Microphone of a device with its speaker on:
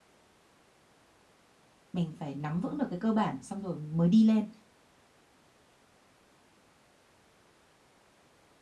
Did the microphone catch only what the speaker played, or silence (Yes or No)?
No